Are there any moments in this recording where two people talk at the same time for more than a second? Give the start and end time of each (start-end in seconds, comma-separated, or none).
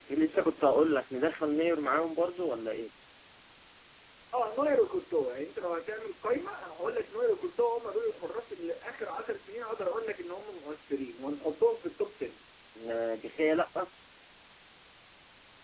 none